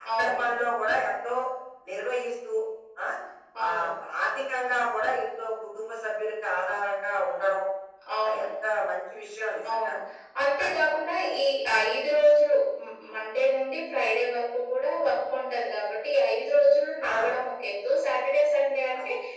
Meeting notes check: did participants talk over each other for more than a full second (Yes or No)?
No